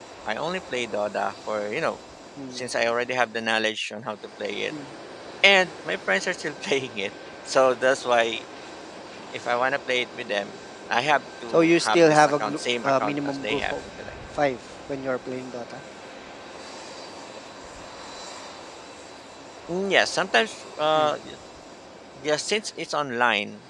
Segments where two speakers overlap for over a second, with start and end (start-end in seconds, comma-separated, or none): 11.5-13.7